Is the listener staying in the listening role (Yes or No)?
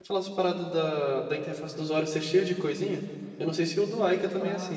No